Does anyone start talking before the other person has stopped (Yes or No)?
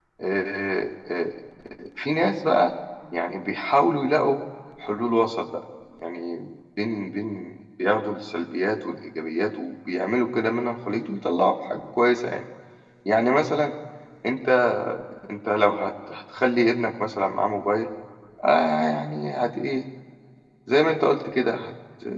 No